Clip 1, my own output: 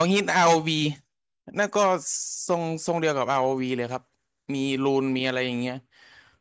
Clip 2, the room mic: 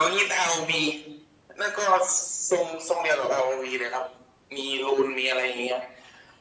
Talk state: echo only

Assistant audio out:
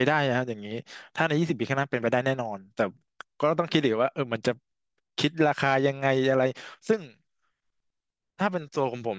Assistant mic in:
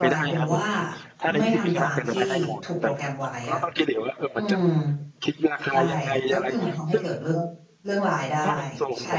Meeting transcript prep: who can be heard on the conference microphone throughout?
both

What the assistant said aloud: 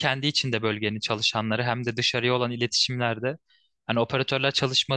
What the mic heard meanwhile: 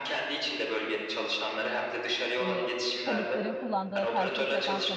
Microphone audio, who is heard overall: both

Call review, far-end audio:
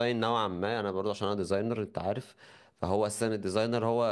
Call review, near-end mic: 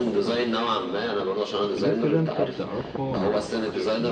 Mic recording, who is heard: both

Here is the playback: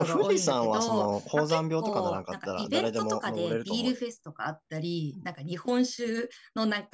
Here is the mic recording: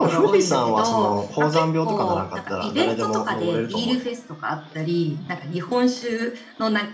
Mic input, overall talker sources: echo only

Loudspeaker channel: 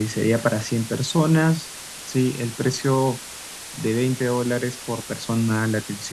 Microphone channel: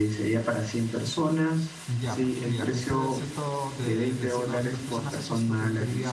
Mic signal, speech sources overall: both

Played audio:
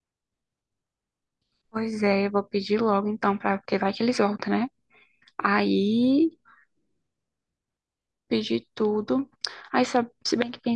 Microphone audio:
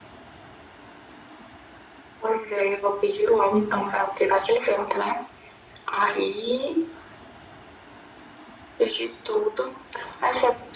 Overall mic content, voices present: both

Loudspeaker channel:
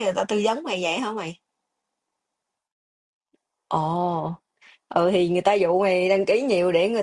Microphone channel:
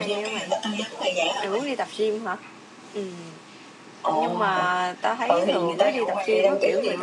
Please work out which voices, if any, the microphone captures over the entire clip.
both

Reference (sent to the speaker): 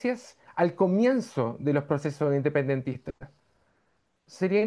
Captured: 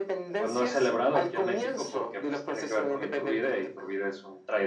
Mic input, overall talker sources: both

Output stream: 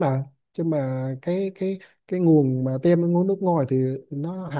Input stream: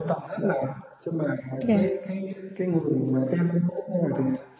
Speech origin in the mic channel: both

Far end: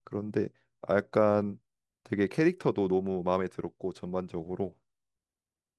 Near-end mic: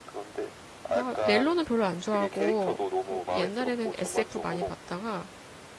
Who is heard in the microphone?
both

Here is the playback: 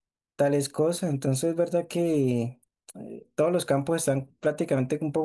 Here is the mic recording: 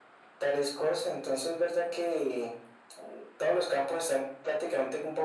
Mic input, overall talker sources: echo only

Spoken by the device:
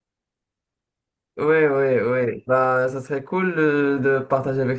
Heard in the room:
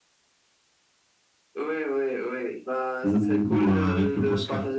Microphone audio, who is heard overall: both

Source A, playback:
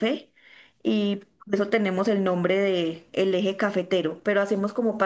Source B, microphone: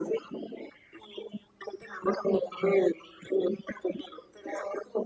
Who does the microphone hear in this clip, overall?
echo only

